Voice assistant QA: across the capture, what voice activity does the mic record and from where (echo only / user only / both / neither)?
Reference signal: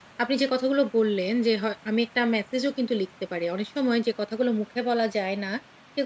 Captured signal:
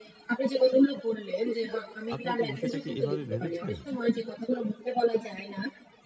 both